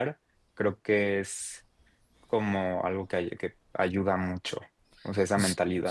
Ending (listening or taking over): taking over